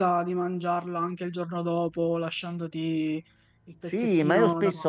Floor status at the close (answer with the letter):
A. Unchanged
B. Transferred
B